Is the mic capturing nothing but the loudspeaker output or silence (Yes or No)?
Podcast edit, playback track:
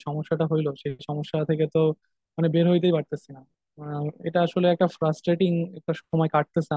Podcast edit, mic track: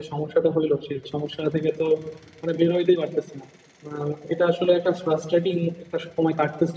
Yes